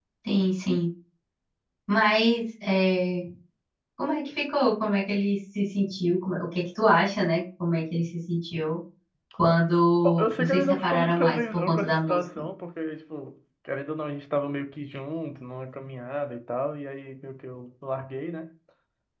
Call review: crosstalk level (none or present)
present